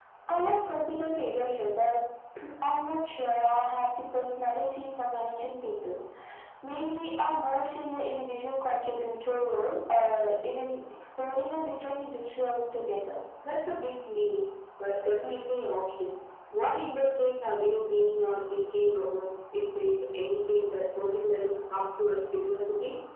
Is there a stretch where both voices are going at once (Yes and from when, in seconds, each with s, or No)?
No